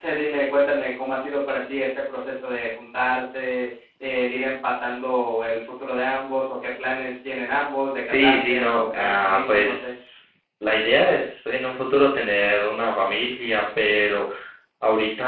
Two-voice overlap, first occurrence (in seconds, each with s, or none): 8.0 s